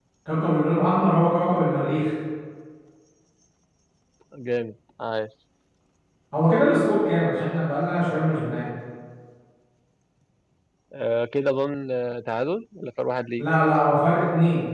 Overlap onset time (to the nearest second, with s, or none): none